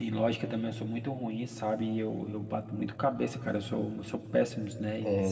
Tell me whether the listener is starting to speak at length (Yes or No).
Yes